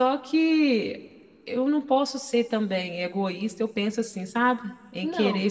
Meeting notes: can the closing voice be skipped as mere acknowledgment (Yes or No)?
Yes